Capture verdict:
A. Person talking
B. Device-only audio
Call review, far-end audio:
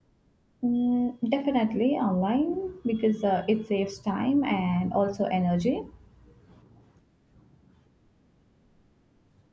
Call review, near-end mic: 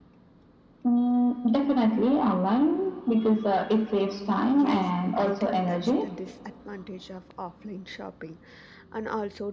A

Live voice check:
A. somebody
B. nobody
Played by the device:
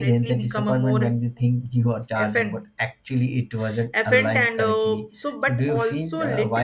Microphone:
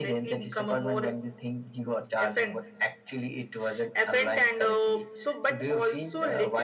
B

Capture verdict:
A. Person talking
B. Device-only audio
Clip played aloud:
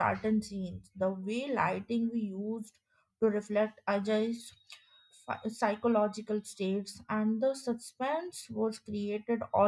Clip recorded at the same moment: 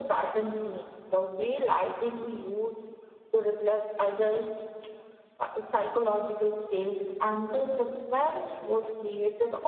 B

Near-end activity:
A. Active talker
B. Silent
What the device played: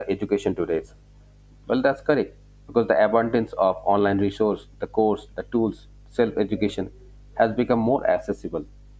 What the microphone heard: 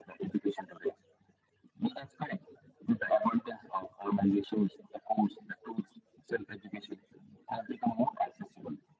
B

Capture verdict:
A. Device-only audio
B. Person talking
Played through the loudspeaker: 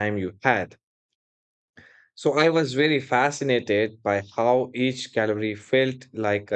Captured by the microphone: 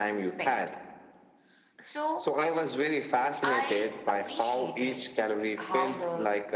B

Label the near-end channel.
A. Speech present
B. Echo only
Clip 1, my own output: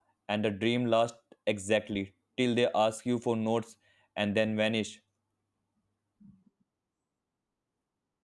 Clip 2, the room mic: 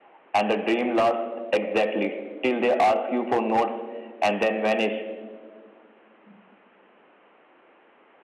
B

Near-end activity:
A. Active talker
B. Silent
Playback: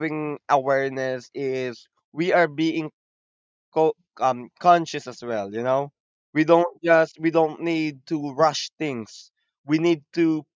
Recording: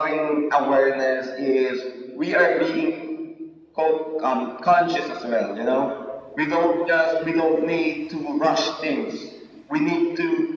B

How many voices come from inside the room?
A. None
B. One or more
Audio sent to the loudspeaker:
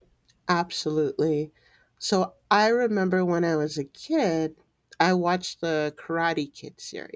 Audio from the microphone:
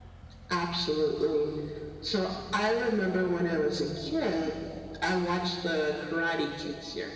A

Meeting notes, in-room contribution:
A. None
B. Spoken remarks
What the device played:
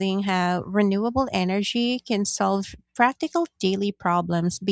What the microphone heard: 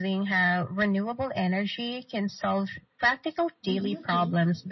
B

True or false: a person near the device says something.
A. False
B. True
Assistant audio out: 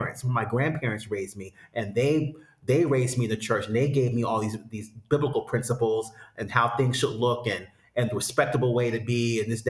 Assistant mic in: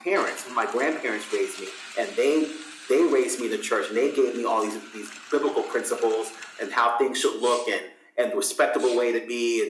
A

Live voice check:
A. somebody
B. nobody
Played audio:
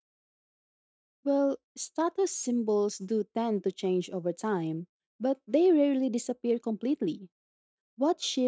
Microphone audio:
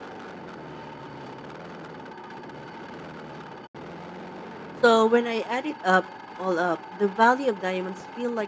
A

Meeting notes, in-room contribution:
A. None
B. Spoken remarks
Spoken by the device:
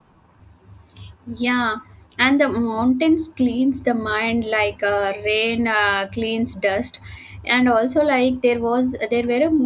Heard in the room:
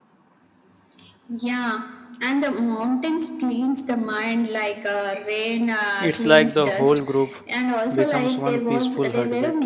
B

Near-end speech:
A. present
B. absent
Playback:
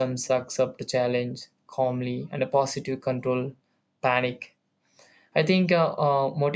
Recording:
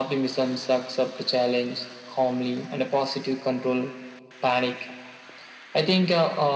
B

